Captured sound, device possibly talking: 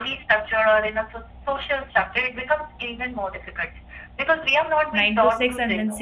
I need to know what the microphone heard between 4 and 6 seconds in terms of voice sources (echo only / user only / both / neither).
both